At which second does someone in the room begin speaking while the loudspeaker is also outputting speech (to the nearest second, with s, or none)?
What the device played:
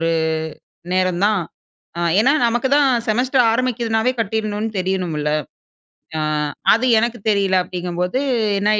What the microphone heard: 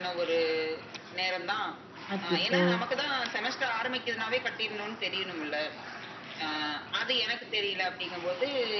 2 s